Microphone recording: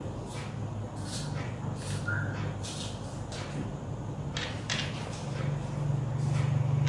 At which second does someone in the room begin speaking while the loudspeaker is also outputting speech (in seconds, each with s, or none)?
none